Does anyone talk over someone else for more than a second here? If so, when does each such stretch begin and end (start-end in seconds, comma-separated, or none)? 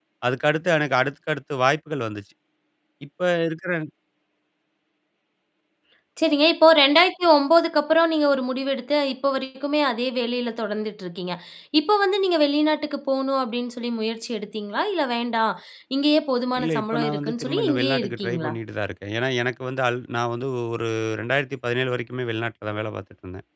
16.6-18.5